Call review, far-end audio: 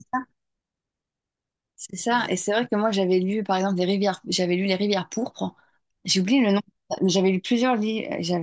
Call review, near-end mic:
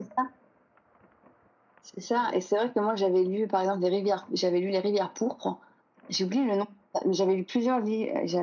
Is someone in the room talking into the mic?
No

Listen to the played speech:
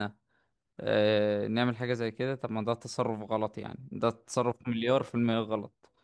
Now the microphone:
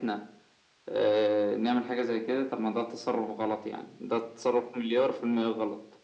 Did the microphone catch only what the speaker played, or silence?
Yes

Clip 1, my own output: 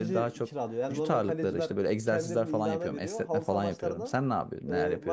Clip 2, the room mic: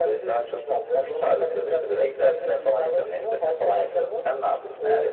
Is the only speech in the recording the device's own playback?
Yes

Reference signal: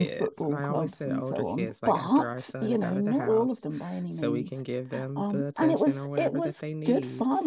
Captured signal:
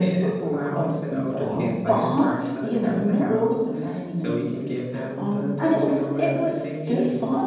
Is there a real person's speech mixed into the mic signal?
Yes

